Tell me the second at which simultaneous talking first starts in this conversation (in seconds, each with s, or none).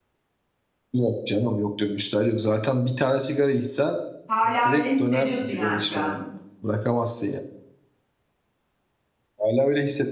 4.6 s